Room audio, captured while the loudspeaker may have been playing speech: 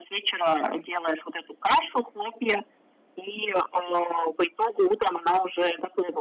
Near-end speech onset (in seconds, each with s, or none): none